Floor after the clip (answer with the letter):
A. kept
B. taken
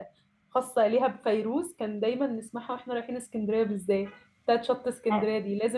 A